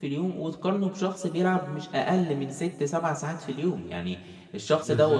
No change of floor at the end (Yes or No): Yes